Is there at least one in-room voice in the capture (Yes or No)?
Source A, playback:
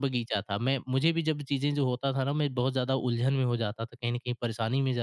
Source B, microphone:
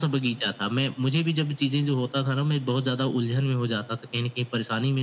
No